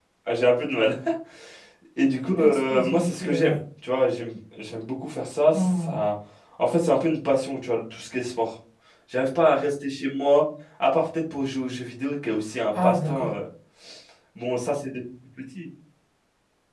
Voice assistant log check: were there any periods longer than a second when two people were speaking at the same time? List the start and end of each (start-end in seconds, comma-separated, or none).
2.4-3.6